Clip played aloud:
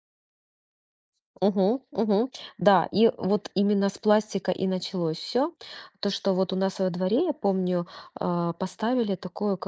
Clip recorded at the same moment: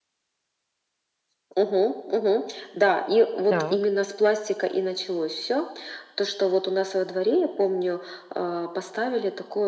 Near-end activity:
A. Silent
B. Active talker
B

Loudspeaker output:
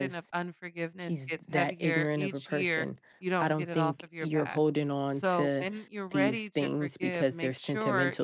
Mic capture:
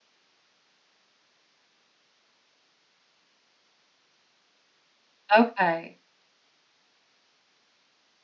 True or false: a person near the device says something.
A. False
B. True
B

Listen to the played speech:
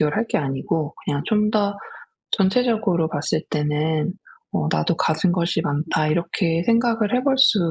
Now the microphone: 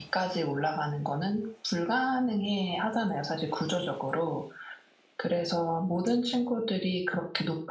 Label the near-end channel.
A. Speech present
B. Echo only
A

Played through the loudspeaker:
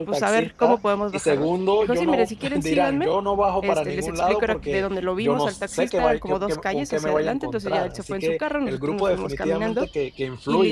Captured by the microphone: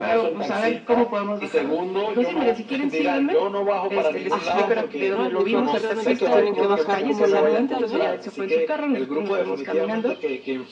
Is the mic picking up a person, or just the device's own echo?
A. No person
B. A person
B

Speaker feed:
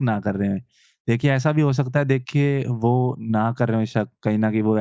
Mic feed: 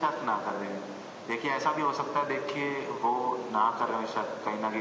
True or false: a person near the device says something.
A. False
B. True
A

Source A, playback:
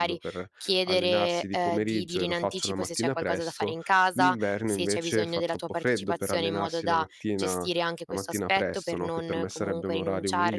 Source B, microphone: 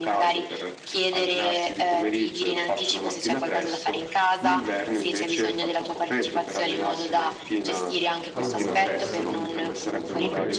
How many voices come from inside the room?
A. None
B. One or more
B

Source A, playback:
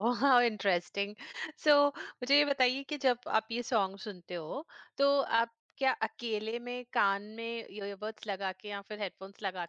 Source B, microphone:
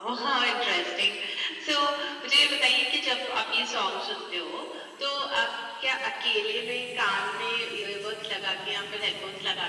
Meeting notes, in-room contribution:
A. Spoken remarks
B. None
B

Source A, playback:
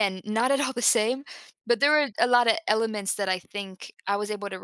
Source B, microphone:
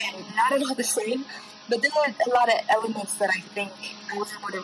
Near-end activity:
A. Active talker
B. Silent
B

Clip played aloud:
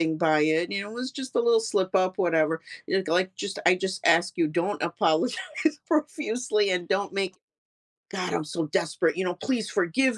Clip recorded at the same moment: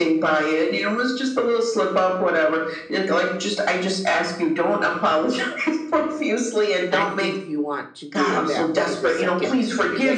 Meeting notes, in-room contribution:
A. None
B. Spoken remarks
B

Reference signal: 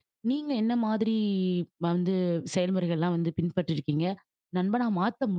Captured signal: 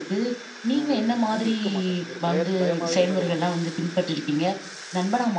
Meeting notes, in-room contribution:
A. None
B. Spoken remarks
B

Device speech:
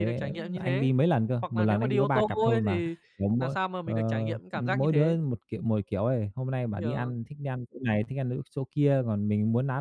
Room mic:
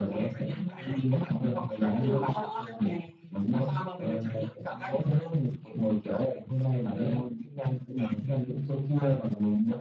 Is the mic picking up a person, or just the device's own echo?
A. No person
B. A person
A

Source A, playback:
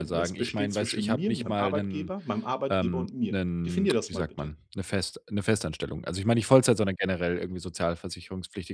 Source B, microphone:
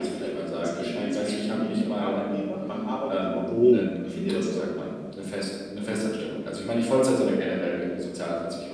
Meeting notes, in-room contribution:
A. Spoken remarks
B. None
A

